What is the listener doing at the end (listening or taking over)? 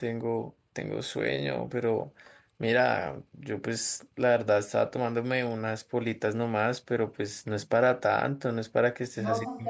taking over